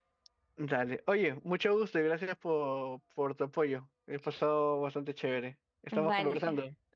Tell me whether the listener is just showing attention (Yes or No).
No